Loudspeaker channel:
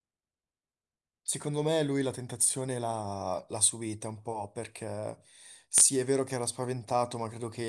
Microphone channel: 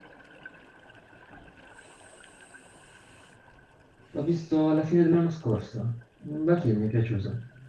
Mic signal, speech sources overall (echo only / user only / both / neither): user only